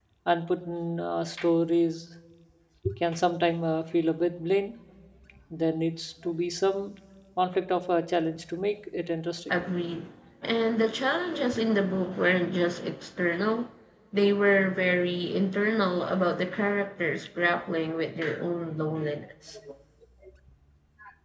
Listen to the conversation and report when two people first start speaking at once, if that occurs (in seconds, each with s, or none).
none